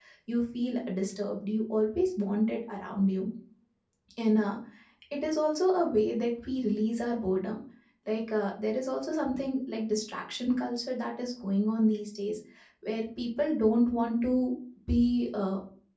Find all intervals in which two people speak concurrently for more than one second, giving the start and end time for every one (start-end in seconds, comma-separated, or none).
none